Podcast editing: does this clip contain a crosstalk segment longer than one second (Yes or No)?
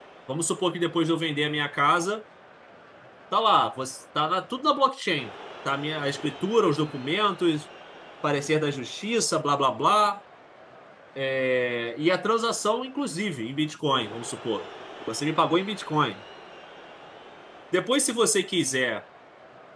No